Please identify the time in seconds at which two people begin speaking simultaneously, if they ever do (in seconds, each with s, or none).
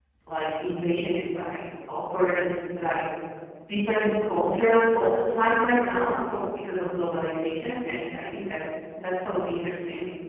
none